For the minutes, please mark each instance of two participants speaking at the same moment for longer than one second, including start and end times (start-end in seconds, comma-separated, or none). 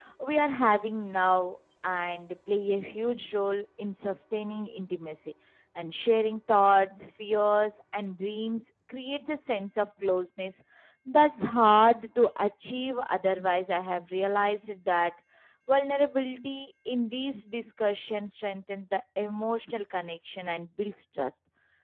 none